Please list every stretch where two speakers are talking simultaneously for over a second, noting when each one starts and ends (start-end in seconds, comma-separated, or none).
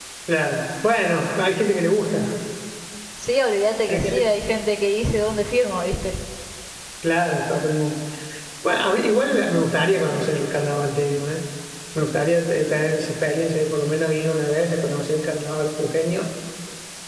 none